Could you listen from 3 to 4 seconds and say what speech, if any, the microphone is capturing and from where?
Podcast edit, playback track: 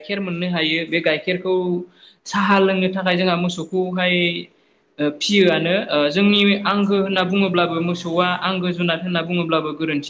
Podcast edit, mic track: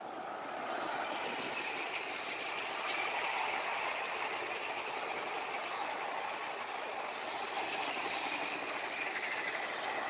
neither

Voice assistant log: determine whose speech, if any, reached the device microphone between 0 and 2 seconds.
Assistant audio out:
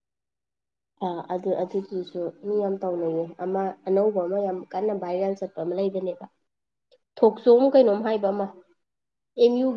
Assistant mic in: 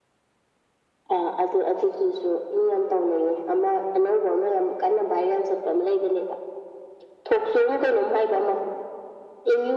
echo only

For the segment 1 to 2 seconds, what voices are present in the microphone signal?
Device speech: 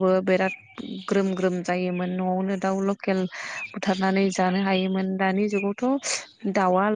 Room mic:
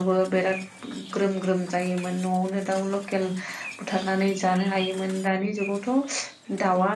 echo only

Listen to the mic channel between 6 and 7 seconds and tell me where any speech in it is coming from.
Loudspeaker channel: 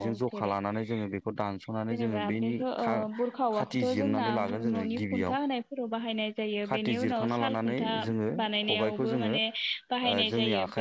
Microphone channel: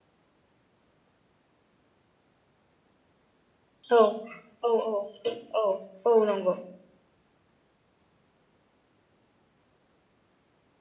user only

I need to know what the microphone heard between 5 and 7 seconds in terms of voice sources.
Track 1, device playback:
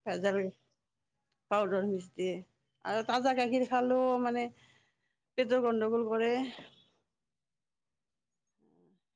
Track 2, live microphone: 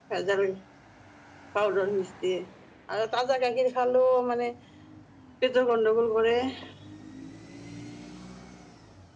echo only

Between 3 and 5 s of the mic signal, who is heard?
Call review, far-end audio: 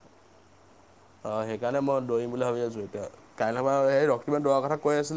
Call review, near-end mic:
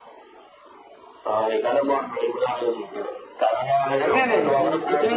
both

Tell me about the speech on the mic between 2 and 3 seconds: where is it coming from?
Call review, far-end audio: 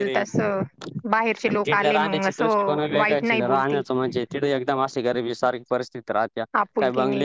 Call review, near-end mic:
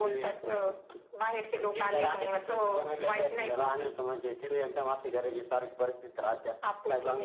echo only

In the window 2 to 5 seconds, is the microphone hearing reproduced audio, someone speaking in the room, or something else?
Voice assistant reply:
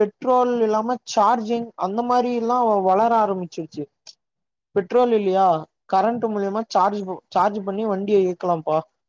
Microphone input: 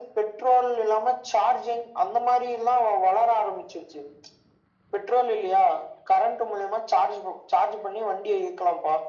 echo only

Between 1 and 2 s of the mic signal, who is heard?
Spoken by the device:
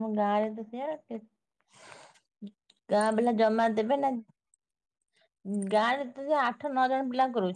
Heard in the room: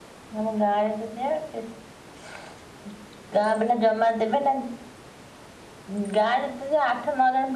echo only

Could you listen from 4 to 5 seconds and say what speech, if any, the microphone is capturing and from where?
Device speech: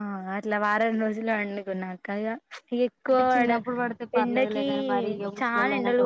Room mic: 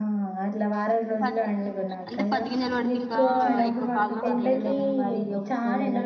both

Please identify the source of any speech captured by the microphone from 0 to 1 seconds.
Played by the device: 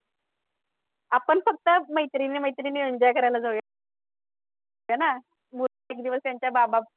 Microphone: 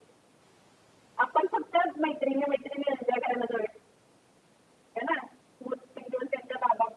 neither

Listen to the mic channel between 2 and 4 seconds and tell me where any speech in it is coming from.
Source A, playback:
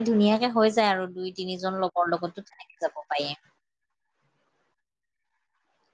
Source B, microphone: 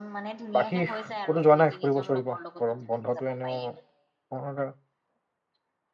both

